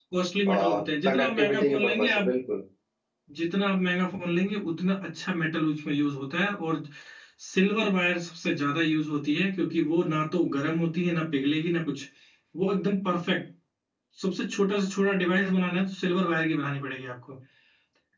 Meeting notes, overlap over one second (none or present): present